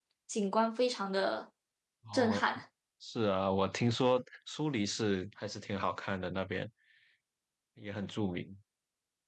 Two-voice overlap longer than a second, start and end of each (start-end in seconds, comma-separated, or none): none